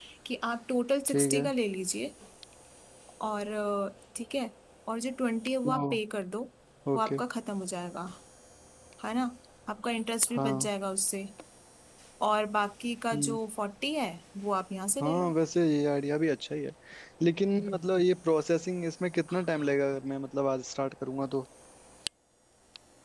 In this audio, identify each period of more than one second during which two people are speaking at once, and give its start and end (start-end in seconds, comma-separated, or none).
none